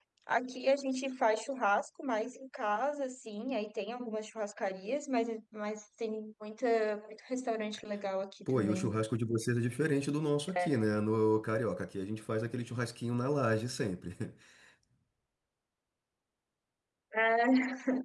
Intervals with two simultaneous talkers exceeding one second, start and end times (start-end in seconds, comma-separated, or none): none